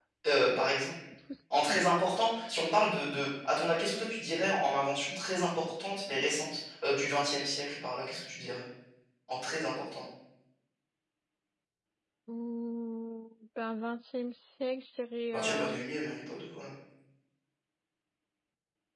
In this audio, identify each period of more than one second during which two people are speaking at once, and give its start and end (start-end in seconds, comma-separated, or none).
none